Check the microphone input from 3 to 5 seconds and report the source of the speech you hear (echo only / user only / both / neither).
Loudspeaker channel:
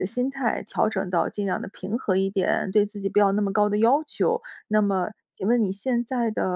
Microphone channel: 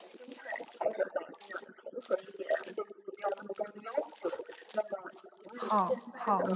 echo only